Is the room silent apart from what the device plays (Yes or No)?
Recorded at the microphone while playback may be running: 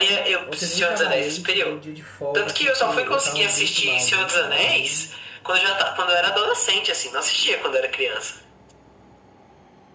No